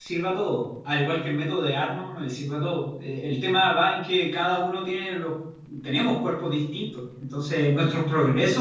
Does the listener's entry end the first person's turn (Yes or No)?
No